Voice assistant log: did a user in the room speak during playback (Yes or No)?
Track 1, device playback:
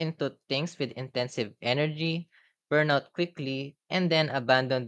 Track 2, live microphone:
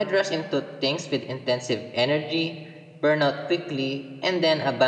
No